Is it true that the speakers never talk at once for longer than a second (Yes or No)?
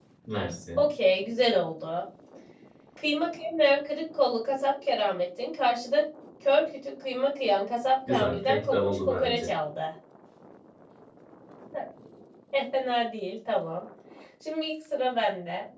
No